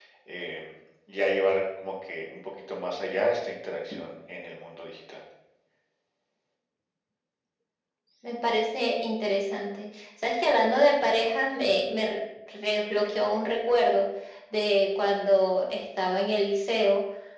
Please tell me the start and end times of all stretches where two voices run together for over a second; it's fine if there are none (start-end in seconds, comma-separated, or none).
none